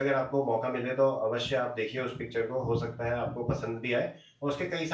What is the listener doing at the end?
listening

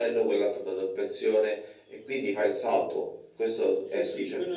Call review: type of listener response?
taking over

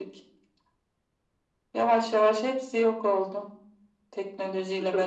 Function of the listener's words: taking over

